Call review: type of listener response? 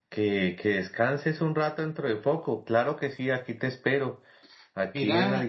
listening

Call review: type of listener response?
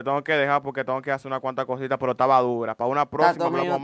taking over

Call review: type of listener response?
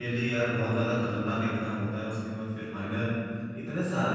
listening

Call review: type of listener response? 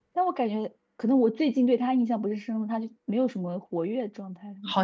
taking over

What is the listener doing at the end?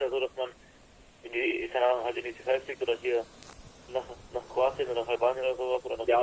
taking over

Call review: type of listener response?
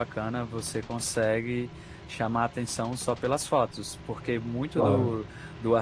listening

